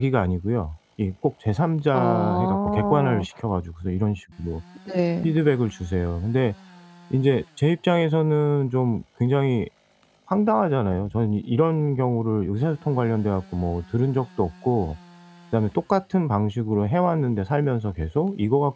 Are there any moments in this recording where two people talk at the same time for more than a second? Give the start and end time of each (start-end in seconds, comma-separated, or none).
1.9-3.2